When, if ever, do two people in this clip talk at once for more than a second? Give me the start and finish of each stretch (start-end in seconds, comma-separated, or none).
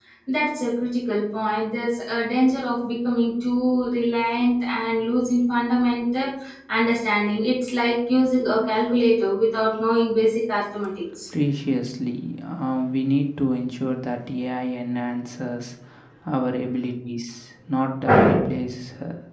none